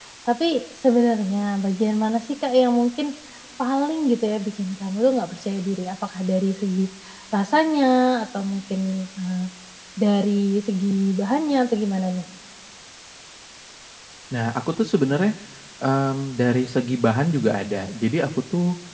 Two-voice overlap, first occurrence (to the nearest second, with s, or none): none